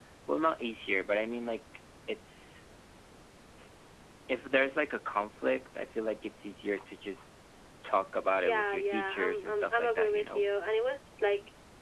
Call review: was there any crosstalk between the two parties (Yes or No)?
Yes